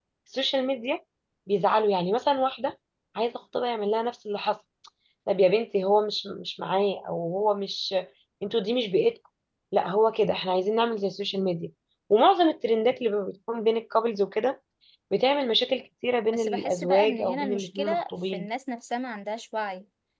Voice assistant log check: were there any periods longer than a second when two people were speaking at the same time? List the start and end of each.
16.3-18.5

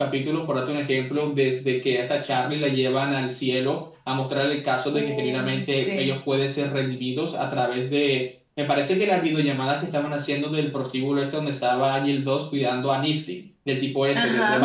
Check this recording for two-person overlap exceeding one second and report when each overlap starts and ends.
4.9-6.1

